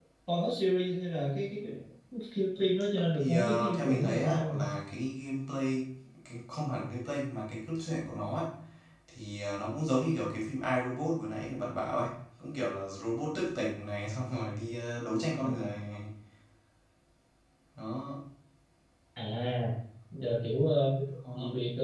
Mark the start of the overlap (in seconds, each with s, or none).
3.2 s